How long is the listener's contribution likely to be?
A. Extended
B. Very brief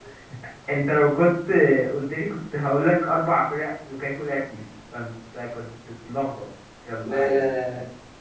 A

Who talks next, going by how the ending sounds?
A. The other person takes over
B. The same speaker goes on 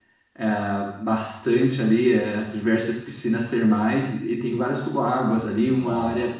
B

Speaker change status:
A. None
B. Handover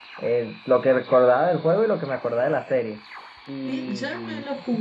B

